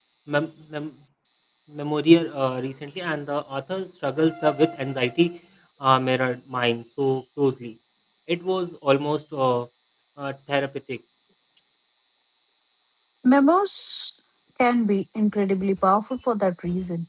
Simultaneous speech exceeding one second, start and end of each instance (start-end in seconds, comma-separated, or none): none